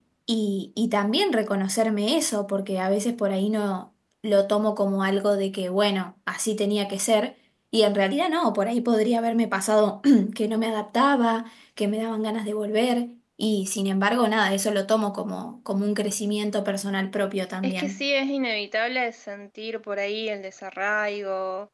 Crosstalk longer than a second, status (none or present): none